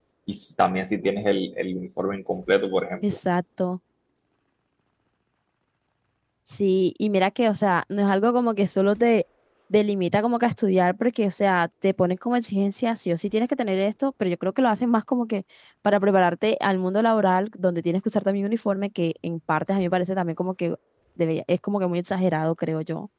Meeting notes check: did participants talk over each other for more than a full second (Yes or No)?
No